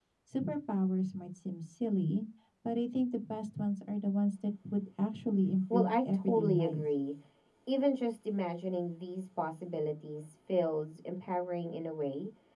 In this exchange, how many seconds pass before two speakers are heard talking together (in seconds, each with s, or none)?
5.7 s